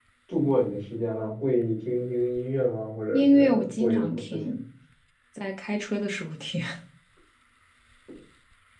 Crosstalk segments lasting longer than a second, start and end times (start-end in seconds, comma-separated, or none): 3.1-4.5